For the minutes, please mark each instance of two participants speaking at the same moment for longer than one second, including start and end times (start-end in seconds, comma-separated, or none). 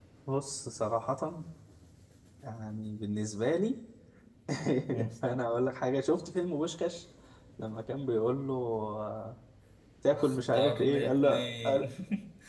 10.1-11.9